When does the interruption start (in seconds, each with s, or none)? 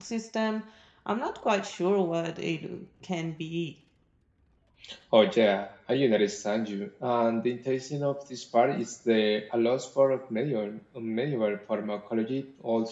none